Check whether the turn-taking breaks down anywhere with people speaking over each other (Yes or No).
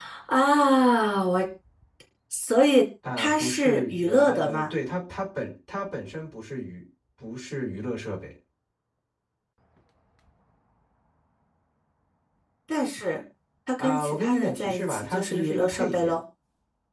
Yes